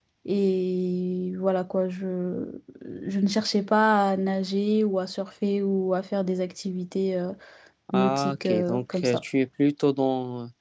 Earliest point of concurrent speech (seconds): 7.9 s

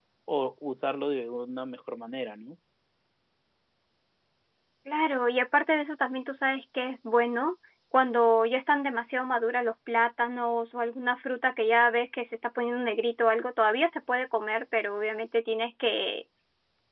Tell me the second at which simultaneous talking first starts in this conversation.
none

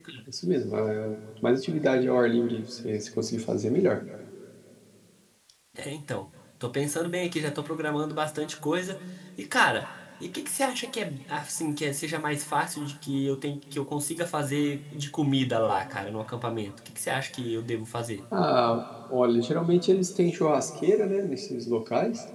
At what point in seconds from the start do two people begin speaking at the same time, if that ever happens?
none

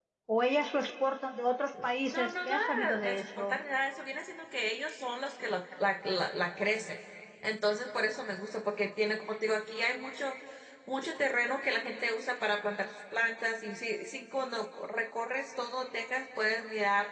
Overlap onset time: 2.0 s

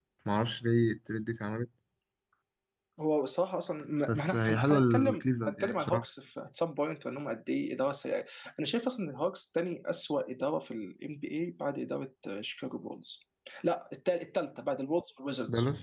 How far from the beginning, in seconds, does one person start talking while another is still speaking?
4.1 s

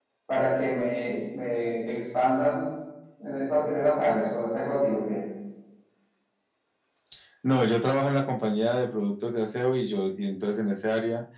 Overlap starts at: none

